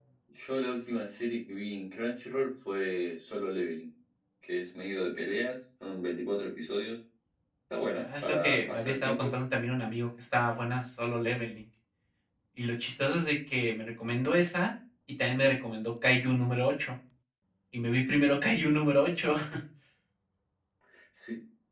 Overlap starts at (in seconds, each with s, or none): 8.0 s